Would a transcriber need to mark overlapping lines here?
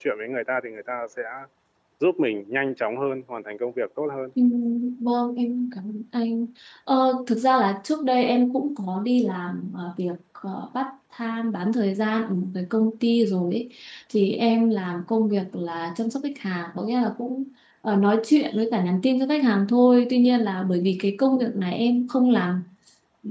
No

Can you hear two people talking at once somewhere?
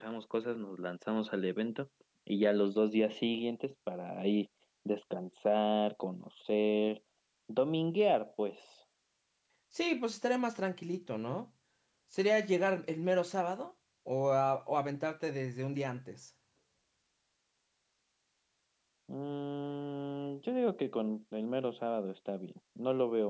No

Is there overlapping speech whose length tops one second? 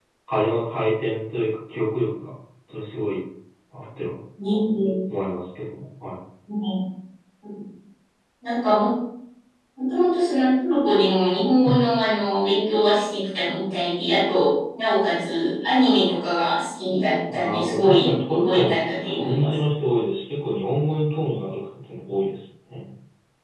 Yes, from 17.3 s

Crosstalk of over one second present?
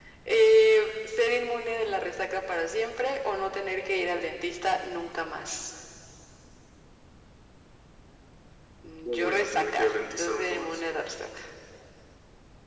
Yes, from 9.1 s

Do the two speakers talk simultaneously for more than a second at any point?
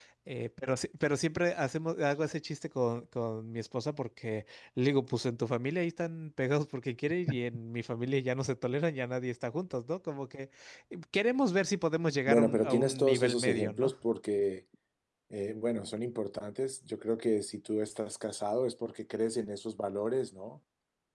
Yes, from 12.3 s

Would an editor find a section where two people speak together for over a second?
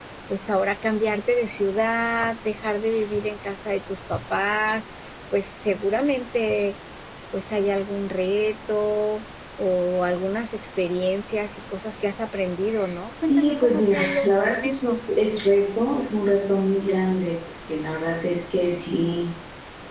Yes, from 13.3 s

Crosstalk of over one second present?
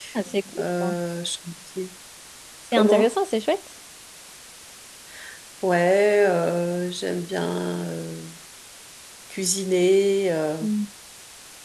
No

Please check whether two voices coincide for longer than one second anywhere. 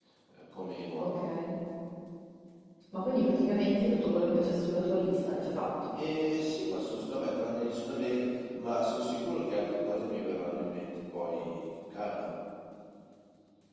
No

